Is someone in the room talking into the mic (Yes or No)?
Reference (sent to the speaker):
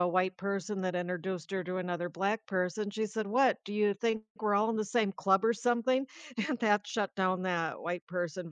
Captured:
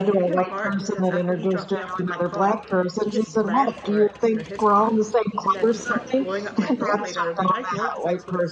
Yes